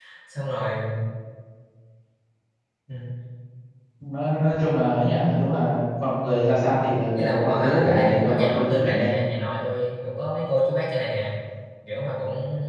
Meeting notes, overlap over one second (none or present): present